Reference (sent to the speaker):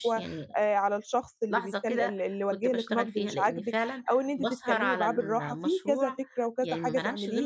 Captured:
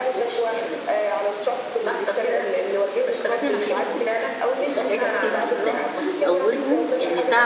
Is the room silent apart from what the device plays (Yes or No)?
No